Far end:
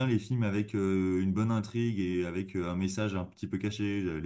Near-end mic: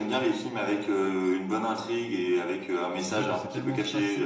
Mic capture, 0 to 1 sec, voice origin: echo only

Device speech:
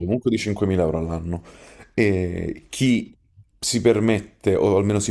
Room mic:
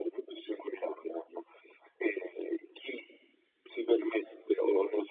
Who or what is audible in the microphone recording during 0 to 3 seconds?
echo only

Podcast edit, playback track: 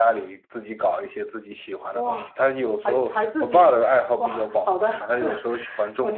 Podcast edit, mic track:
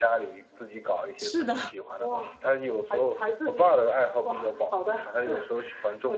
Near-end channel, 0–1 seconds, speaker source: echo only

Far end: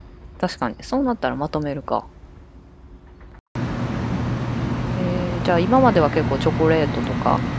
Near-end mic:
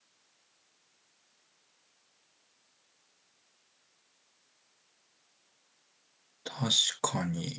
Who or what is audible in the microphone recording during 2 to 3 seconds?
neither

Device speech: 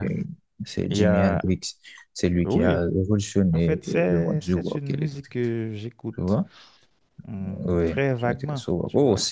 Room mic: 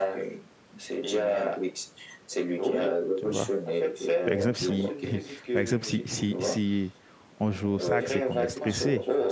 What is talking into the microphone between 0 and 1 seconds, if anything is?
echo only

